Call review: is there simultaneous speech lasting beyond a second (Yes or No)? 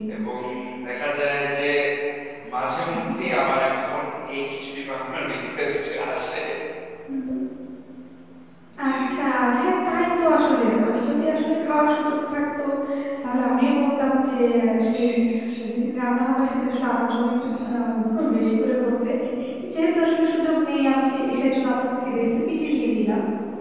No